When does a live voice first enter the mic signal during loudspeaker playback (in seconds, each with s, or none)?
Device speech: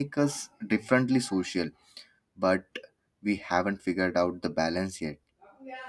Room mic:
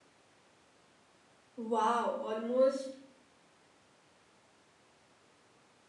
1.6 s